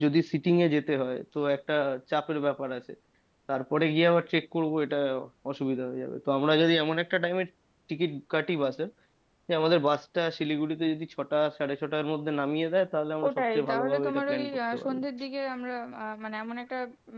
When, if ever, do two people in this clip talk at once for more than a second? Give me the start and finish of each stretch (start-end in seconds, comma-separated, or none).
13.3-15.0